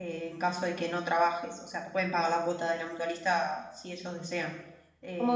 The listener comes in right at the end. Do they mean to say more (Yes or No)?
No